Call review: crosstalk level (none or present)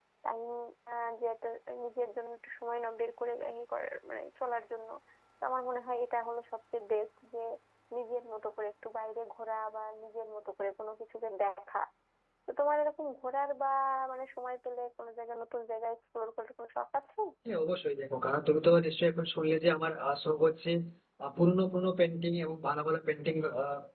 none